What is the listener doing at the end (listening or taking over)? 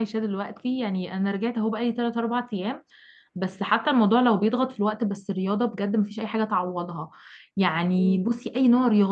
listening